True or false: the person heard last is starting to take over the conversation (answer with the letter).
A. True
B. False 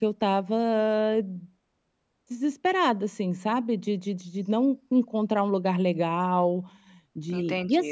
A